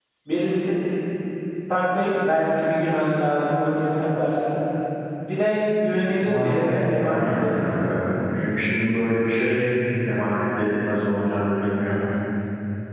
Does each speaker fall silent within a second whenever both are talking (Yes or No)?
No